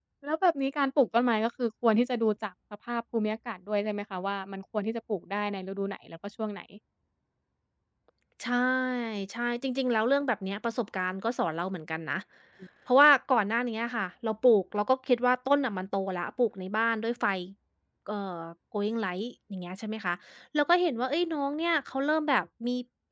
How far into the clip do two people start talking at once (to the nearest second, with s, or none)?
none